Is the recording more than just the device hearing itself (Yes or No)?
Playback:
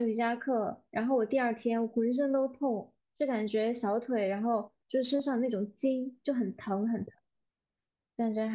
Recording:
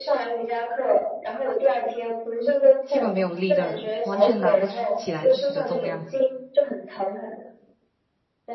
Yes